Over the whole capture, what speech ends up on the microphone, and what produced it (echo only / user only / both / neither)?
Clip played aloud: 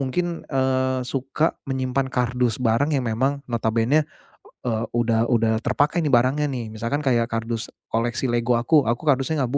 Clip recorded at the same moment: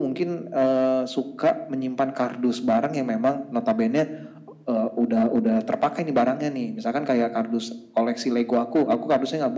echo only